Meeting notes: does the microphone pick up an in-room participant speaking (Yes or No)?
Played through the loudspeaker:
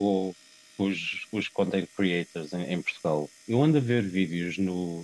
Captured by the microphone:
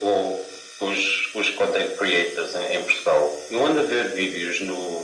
No